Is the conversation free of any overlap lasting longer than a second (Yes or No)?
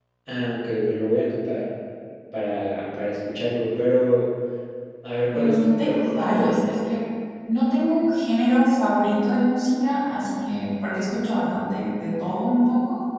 No